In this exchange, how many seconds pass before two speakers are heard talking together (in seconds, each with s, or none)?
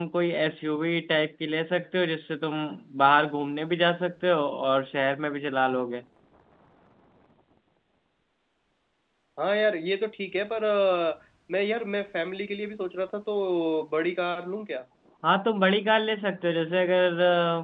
none